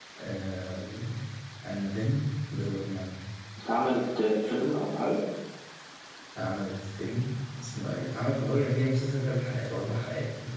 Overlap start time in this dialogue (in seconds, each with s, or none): none